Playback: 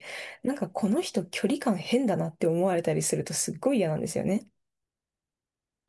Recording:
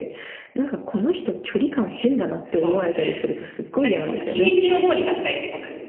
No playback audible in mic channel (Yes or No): No